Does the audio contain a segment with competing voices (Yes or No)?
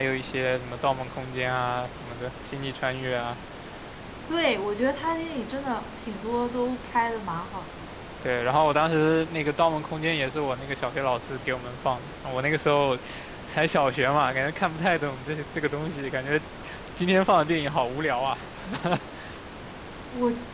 No